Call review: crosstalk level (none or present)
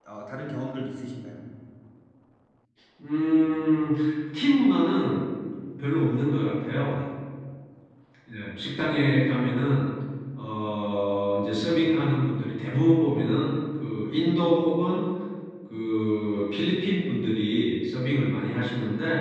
none